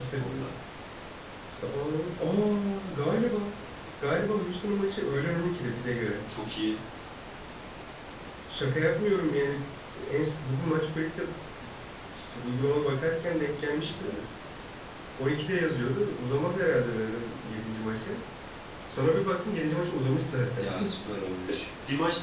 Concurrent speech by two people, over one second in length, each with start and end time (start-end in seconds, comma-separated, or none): none